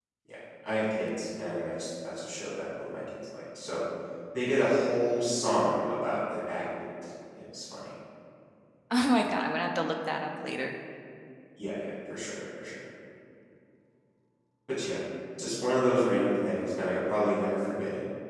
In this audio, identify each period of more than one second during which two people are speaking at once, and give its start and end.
none

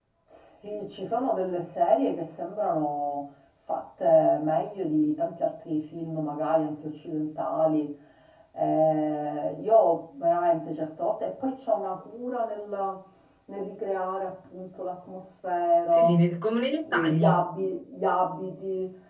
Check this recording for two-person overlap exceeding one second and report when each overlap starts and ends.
none

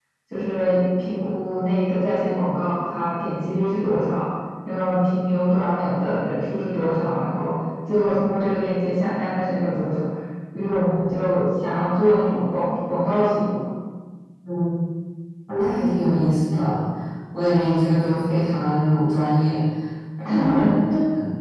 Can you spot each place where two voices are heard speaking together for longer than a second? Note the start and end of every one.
none

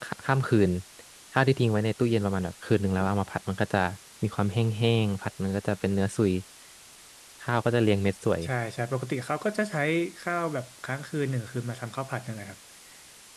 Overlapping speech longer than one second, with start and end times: none

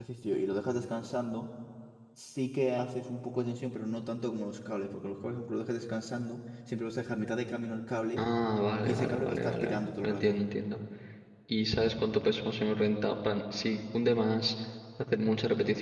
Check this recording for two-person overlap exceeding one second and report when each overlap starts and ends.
8.8-10.4

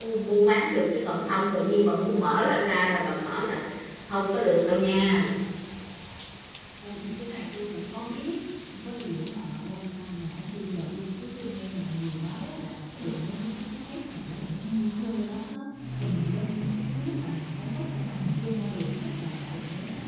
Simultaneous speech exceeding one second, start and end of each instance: none

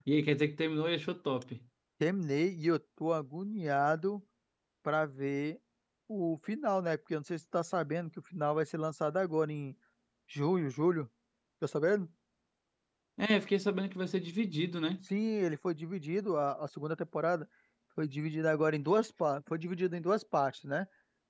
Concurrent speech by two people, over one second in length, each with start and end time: none

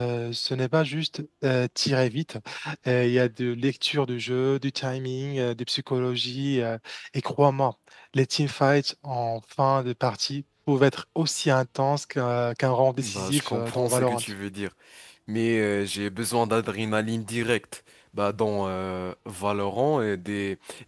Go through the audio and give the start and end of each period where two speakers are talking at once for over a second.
13.0-14.2

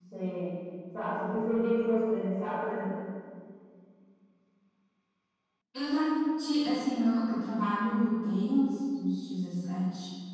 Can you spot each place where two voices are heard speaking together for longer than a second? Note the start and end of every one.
none

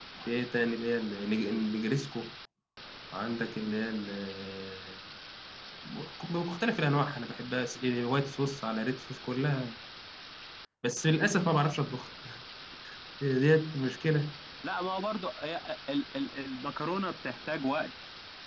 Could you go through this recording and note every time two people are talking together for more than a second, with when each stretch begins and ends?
none

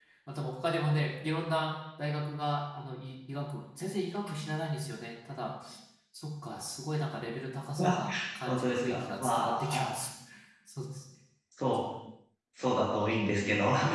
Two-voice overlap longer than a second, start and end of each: 8.4-9.9

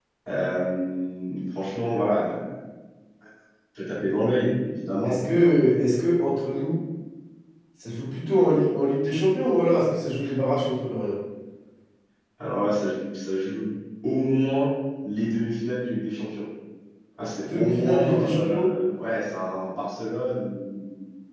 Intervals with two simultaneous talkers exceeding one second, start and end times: 17.5-18.7

